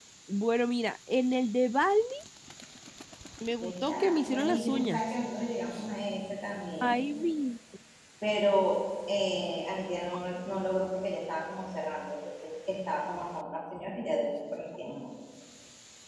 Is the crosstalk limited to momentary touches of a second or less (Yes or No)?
No